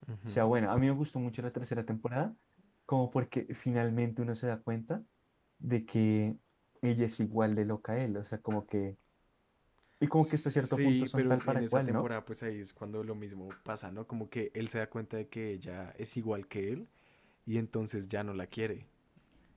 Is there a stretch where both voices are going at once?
Yes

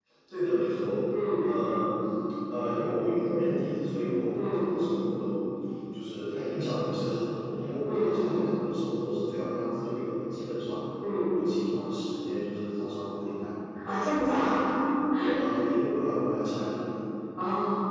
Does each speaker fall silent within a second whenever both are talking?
Yes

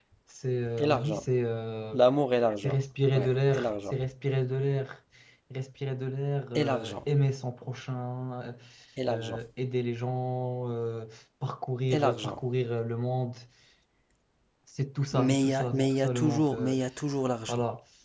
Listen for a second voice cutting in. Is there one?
Yes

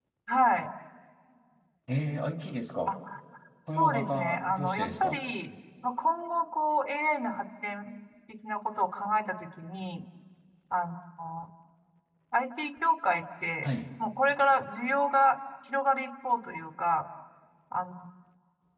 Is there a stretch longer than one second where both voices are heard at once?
Yes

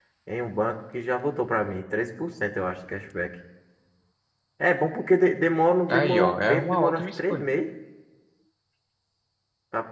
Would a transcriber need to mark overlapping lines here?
Yes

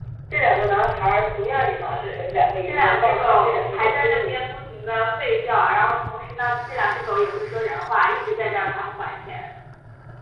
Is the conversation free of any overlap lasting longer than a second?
No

